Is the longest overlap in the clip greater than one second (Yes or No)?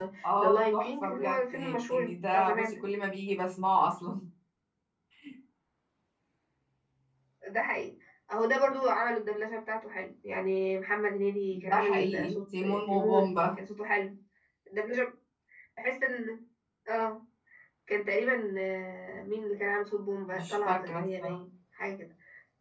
Yes